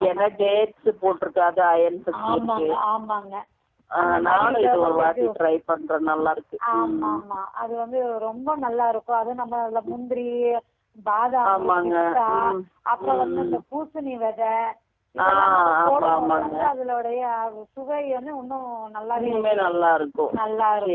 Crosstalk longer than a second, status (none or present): present